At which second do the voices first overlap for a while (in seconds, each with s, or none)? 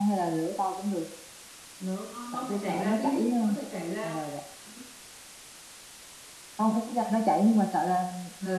2.3 s